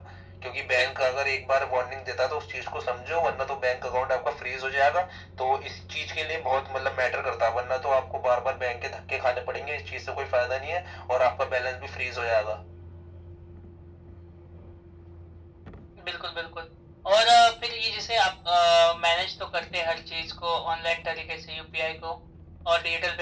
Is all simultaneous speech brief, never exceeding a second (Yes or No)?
Yes